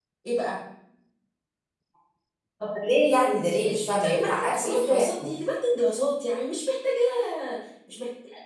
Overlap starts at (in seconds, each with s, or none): 3.6 s